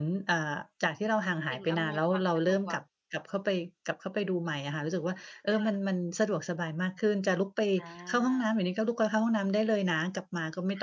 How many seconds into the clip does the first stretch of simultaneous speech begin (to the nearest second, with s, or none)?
1 s